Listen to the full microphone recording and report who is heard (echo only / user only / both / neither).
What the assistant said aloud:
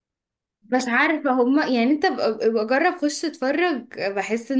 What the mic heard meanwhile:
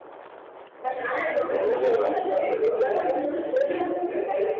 both